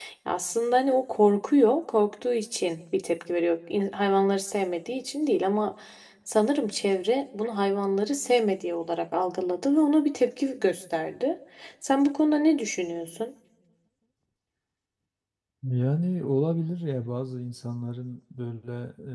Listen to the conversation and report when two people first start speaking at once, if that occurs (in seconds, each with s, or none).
none